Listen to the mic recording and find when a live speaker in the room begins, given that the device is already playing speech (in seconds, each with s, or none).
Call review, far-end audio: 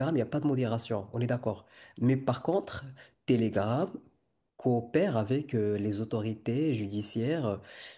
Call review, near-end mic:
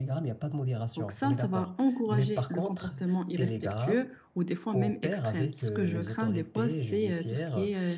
1.0 s